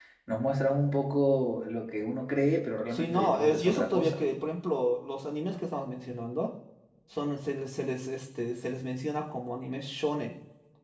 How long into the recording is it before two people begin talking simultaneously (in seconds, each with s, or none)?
2.9 s